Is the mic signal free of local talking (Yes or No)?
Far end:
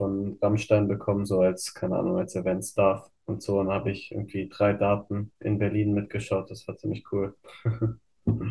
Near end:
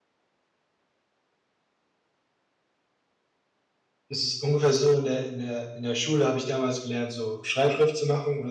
No